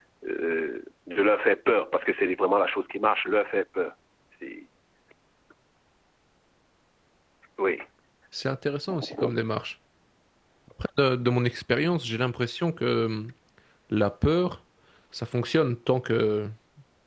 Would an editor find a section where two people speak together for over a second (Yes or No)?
No